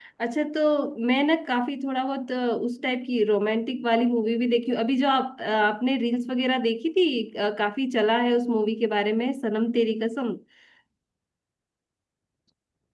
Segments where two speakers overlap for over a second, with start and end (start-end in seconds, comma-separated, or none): none